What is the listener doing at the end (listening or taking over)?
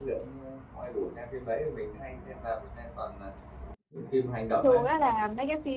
taking over